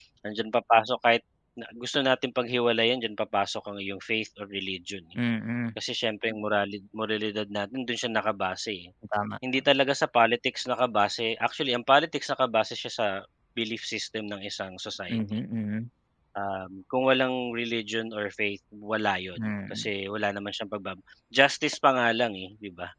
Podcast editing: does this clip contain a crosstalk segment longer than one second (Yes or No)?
No